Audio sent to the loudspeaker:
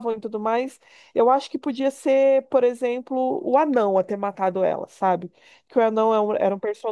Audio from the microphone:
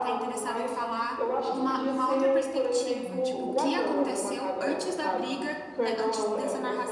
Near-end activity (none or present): present